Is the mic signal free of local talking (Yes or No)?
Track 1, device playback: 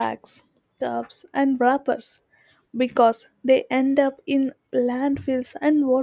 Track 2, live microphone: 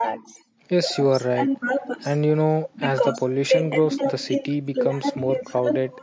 No